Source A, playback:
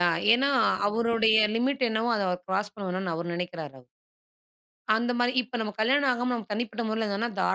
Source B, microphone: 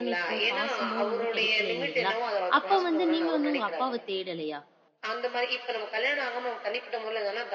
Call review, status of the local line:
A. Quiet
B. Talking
B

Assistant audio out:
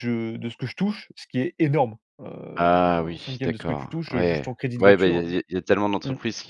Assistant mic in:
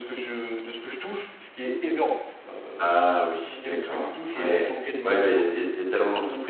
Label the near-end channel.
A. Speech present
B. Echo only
B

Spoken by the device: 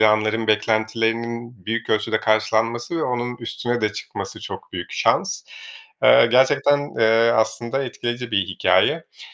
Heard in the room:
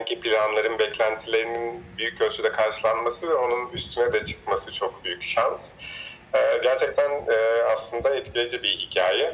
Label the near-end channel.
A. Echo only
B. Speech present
A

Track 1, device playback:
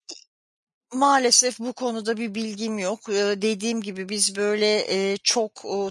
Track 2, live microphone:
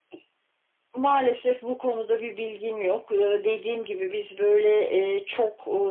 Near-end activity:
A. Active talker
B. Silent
B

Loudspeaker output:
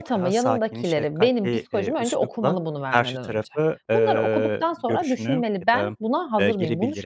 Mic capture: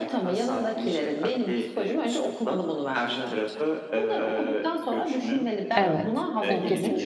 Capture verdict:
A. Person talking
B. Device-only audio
A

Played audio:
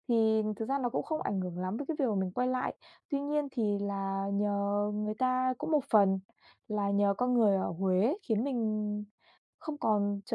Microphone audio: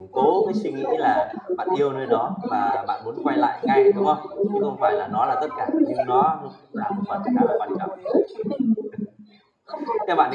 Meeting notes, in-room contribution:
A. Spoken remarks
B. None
A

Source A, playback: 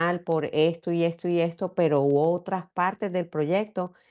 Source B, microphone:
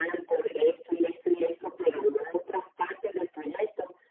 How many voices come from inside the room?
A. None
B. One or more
A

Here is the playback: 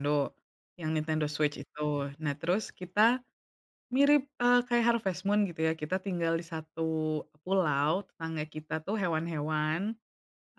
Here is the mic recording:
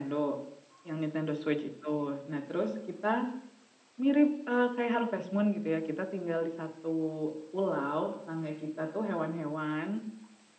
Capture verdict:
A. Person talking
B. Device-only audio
B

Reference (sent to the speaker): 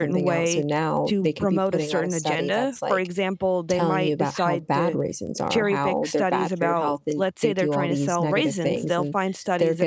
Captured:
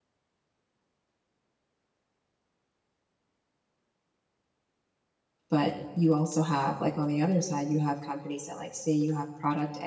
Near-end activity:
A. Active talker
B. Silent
A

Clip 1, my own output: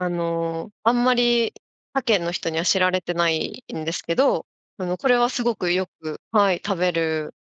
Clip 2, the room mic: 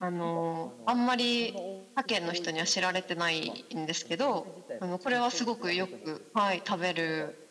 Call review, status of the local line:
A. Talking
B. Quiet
A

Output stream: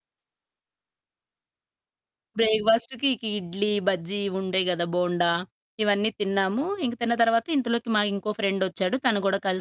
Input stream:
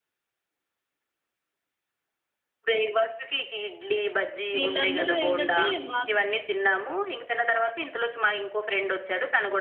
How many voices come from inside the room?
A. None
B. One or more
B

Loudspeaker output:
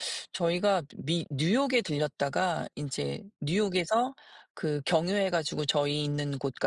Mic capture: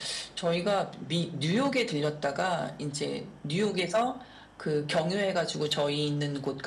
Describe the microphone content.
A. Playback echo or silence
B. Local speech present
A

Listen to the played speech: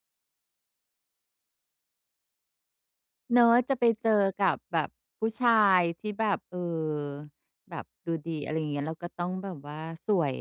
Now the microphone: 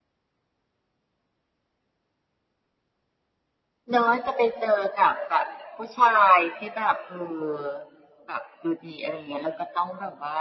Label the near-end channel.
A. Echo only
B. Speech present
A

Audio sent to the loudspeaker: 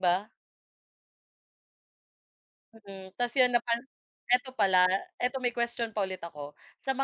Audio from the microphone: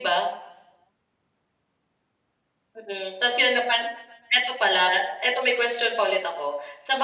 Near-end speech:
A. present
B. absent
B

